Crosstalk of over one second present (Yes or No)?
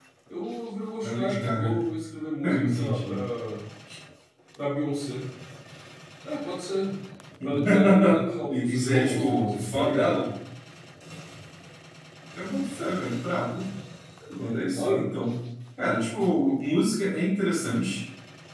Yes